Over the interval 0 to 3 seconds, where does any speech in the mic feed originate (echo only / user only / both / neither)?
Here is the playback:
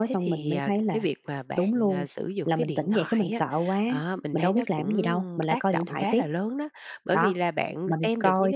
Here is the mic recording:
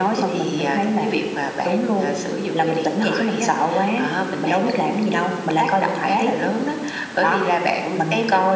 echo only